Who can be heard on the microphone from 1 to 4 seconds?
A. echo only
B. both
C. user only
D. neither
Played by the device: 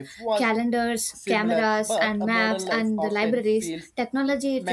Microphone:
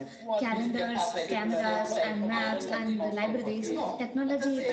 B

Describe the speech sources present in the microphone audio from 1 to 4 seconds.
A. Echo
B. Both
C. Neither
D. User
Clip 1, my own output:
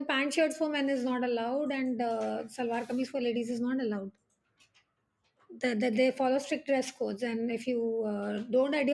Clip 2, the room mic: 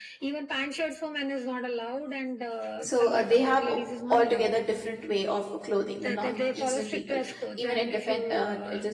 B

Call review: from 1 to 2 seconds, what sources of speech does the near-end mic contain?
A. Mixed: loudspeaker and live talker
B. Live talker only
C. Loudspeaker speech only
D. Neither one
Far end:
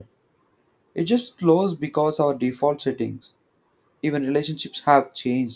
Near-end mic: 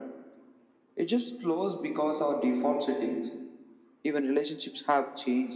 C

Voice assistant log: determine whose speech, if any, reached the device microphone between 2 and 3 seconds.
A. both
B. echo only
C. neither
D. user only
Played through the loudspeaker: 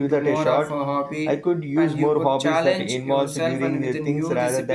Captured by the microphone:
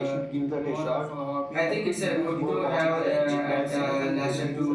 A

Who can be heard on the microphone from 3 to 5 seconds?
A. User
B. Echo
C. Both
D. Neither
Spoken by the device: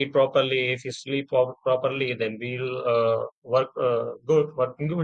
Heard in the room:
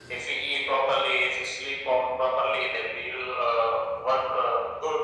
B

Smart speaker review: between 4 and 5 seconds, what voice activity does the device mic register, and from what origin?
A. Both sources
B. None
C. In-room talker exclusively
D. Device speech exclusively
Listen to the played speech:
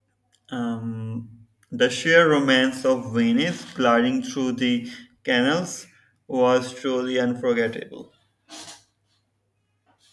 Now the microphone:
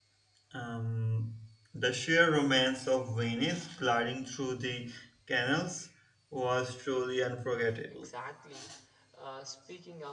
D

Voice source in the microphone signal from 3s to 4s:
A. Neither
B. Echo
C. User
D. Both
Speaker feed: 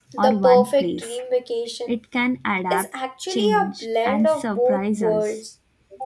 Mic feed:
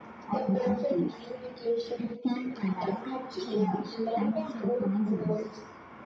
B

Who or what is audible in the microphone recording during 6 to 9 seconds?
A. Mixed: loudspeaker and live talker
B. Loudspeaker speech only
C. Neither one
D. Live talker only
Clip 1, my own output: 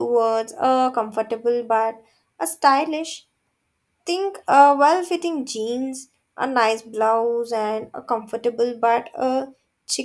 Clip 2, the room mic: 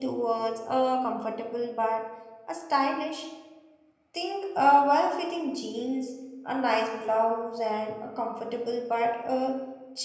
B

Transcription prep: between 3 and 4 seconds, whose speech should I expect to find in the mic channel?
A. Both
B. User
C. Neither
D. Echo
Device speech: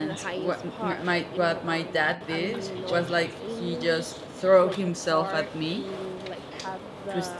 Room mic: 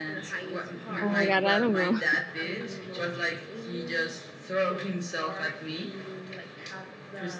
D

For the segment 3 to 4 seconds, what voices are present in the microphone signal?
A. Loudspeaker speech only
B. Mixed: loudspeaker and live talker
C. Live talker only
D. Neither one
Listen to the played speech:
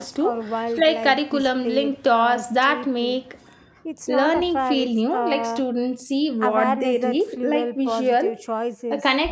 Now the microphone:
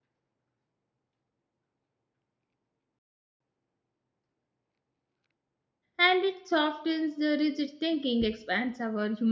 D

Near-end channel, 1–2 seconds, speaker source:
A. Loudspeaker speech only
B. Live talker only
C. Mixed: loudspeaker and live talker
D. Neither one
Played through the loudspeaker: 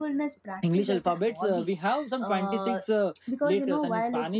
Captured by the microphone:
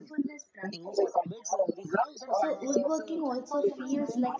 A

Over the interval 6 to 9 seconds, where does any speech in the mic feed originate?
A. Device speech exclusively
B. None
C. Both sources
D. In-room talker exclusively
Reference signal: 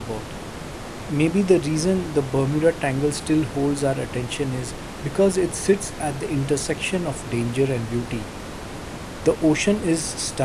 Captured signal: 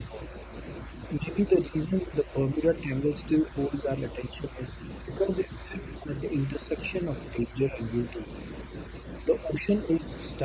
A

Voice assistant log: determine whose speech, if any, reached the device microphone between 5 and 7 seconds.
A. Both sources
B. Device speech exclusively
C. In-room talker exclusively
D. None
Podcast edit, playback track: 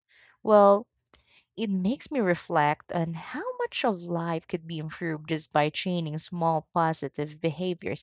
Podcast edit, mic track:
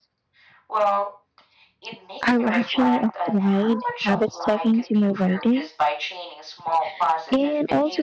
A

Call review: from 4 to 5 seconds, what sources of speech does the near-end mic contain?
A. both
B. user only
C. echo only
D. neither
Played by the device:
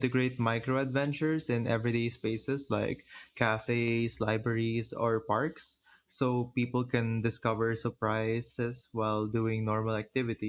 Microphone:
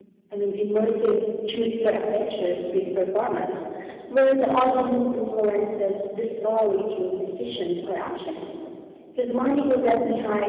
B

